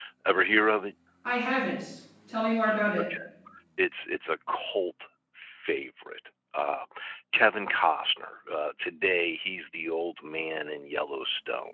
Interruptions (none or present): none